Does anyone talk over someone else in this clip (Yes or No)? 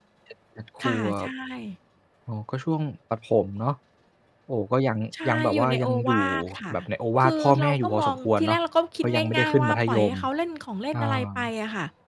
Yes